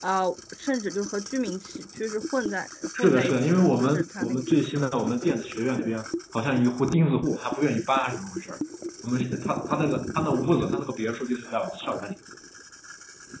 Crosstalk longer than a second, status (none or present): present